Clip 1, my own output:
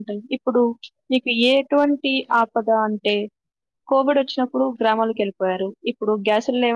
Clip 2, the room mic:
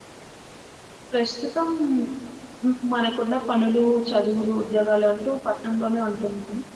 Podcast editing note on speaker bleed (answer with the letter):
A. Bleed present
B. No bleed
B